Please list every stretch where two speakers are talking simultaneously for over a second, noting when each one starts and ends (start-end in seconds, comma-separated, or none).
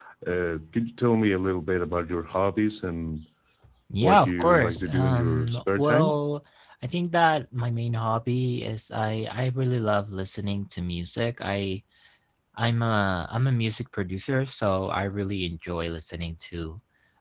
4.0-6.2